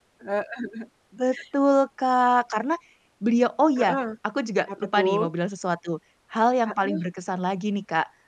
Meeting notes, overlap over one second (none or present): none